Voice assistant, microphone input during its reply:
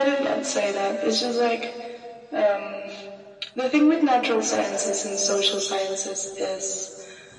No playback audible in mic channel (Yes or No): No